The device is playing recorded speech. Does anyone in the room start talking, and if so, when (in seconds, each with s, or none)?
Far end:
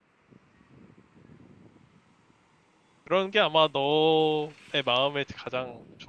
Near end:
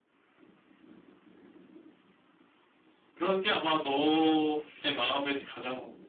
none